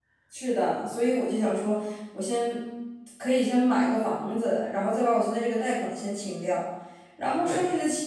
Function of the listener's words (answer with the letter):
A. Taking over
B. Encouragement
B